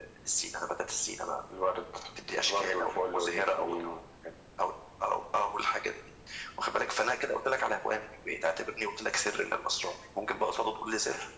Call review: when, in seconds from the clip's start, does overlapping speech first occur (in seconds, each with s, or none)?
2.4 s